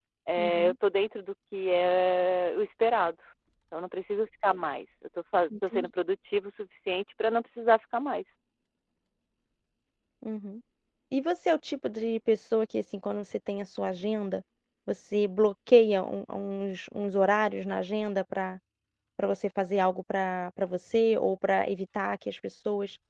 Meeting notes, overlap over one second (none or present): none